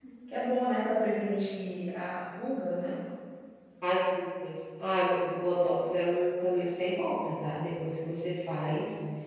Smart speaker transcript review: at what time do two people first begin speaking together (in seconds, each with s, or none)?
none